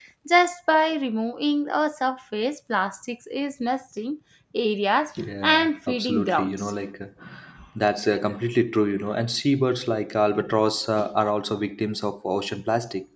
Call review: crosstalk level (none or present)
present